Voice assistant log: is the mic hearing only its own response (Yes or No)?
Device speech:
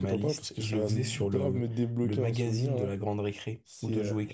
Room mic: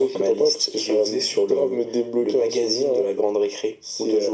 Yes